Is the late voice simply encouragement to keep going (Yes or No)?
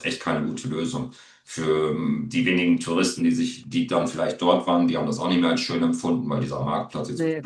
Yes